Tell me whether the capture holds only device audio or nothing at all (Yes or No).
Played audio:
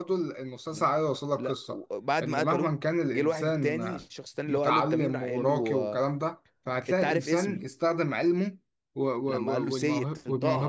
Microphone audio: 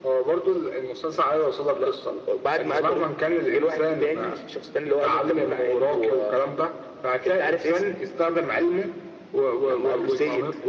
Yes